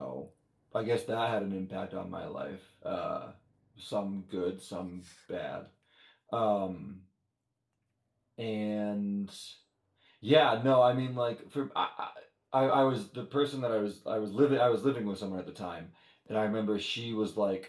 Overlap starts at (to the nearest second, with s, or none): none